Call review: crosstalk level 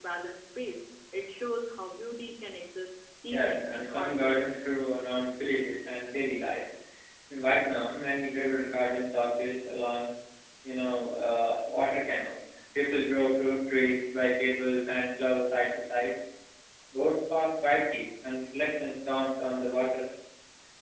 present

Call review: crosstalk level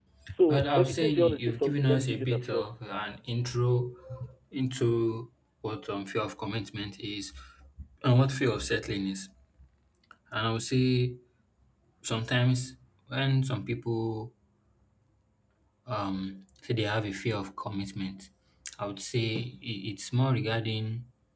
present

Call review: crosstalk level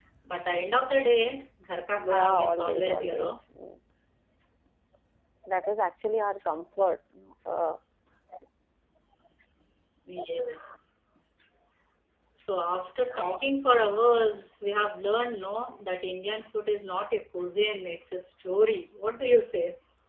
present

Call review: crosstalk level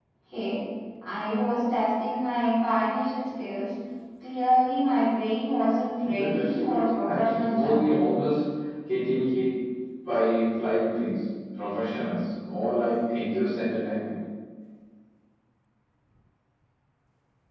present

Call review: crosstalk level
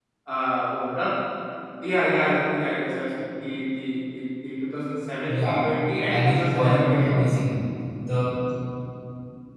present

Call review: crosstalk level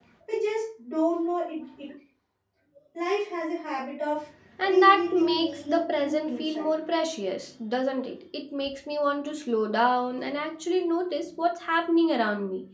present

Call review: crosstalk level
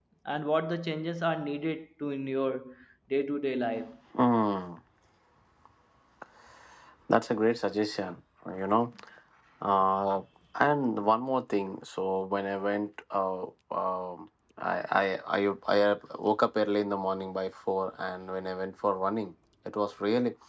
none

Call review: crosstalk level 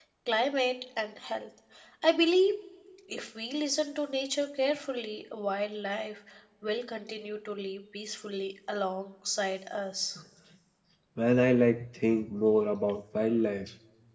none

